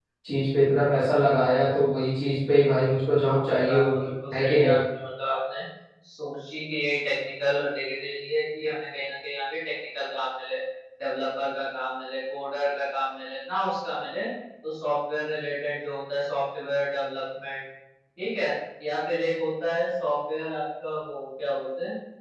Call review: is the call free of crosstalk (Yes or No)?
No